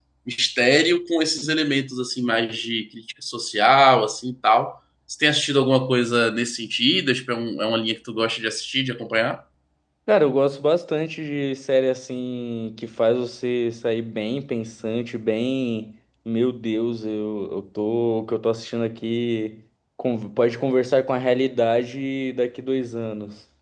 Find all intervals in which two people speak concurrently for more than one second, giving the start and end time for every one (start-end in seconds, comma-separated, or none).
none